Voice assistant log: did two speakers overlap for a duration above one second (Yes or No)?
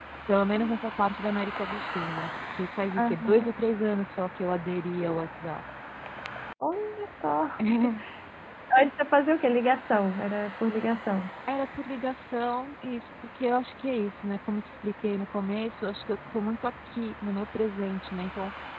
No